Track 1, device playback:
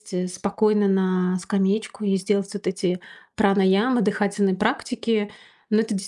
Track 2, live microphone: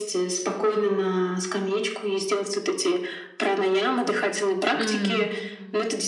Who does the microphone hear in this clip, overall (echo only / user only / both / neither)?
both